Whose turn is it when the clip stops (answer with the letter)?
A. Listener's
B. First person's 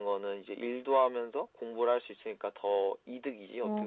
A